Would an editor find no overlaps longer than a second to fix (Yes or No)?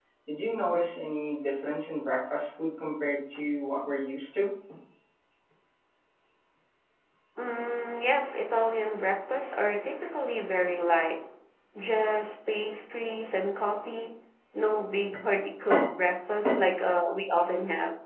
Yes